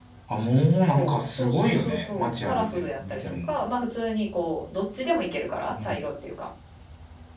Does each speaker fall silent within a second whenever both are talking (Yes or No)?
No